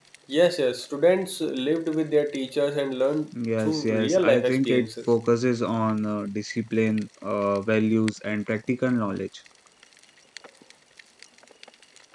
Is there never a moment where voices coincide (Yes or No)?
No